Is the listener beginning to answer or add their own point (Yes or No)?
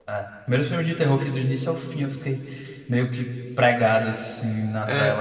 Yes